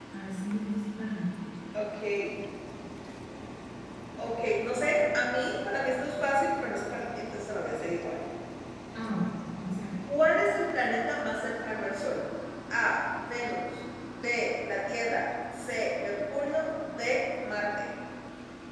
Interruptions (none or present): none